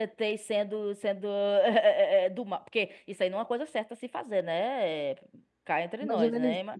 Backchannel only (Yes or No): No